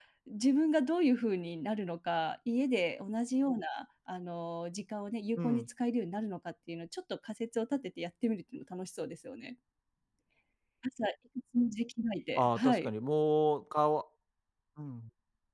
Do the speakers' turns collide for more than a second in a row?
No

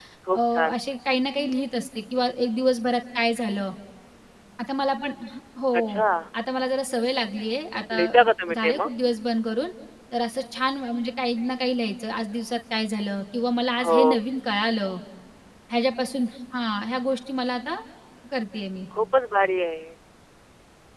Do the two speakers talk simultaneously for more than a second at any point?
No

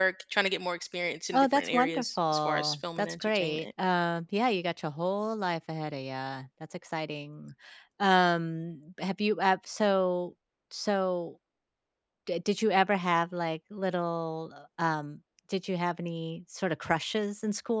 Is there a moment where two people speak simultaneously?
Yes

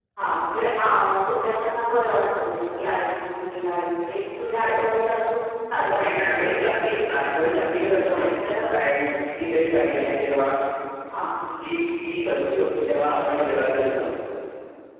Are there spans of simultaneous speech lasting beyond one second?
Yes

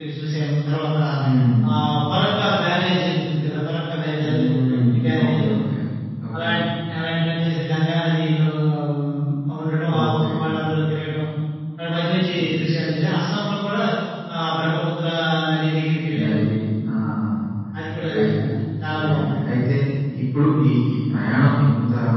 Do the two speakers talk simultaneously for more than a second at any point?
Yes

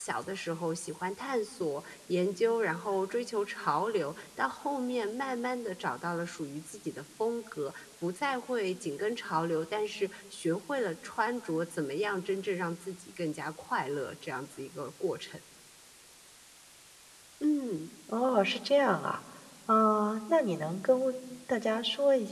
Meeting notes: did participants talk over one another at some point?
No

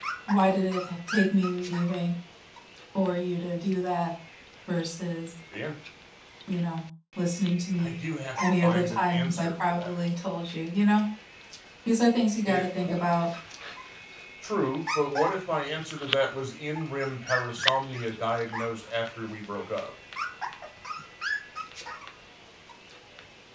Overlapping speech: Yes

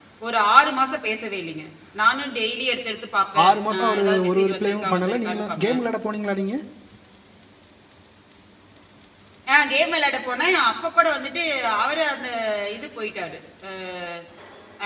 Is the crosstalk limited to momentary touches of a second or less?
No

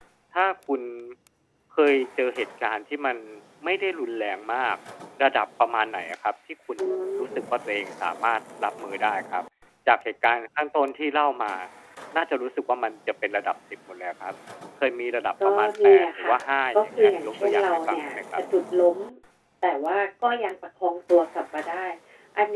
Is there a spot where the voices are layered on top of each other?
Yes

